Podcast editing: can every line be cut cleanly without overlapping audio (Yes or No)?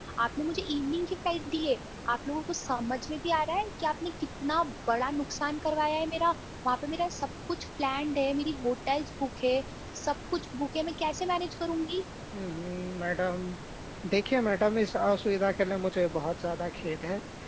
Yes